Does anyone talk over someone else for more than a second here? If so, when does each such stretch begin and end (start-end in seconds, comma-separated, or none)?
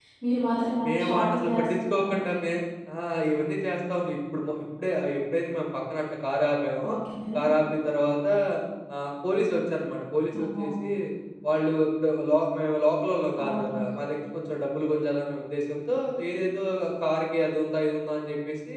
0.9-2.1